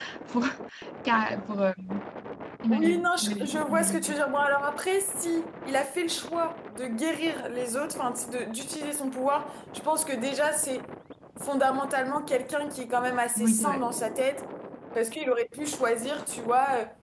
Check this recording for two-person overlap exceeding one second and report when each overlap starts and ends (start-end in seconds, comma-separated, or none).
2.7-4.2